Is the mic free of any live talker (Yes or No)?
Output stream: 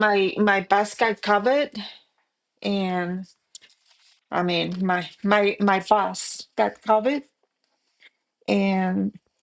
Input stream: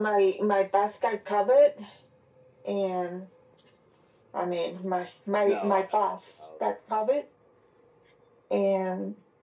No